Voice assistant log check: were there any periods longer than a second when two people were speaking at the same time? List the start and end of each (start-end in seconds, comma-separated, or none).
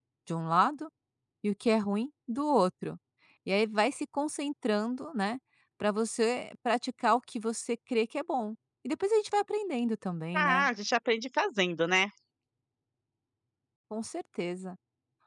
none